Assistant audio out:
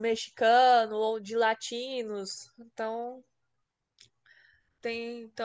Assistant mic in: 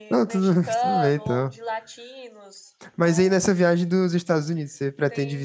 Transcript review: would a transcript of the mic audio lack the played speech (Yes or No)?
No